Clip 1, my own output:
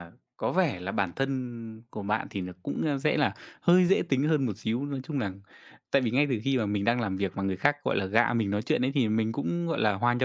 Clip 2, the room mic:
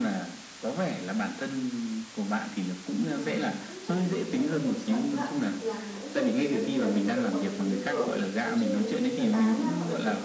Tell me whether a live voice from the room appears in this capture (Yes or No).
Yes